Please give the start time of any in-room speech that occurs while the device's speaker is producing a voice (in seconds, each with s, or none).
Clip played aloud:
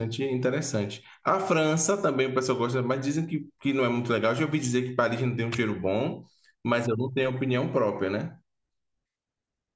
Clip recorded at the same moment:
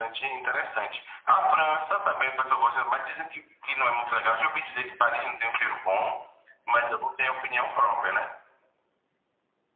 none